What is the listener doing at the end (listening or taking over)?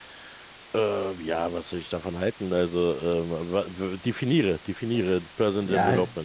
taking over